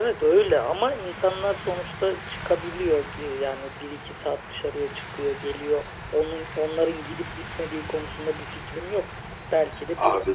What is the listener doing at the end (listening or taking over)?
listening